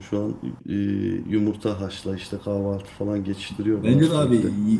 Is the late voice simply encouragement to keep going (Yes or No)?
No